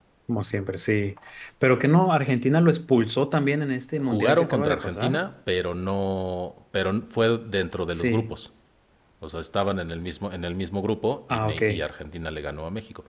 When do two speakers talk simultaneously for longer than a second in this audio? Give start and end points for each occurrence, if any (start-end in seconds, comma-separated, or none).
4.0-5.2